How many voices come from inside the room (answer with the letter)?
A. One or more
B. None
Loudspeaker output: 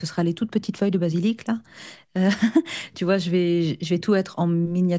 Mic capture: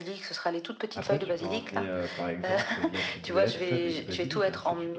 A